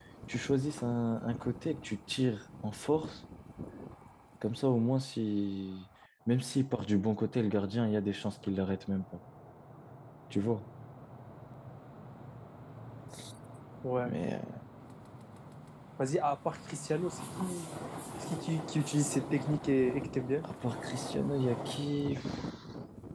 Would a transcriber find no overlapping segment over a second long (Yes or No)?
Yes